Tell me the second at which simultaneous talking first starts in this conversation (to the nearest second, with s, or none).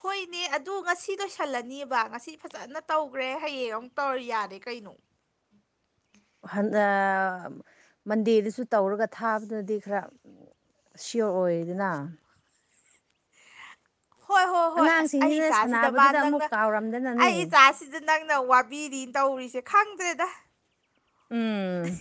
15 s